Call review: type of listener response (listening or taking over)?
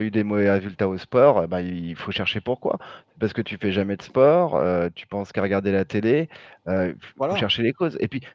listening